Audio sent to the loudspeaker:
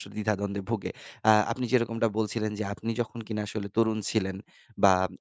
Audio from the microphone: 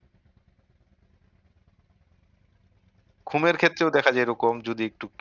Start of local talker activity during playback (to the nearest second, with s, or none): 3 s